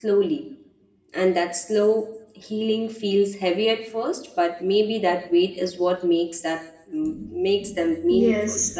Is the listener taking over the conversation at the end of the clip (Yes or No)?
Yes